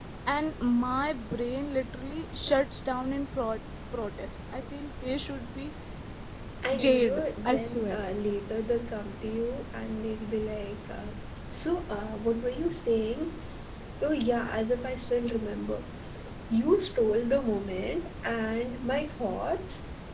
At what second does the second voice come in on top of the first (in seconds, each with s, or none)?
6.7 s